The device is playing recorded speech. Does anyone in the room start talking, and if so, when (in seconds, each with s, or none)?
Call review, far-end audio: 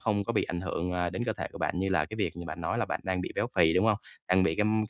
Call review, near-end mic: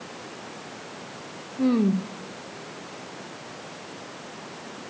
1.6 s